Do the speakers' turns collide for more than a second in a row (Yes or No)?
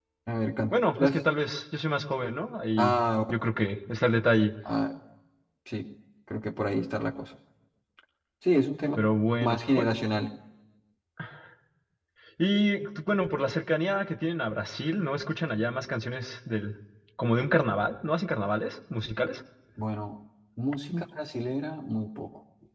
No